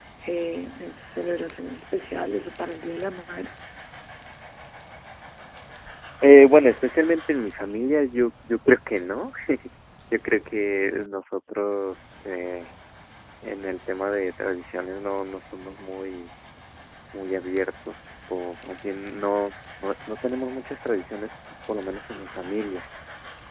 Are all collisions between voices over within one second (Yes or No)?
Yes